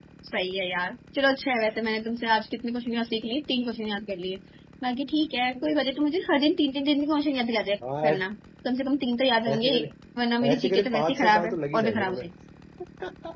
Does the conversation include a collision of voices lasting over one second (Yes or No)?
Yes